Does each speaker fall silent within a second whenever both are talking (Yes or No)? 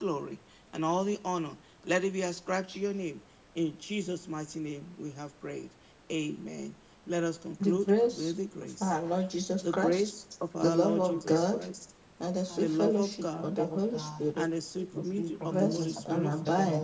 No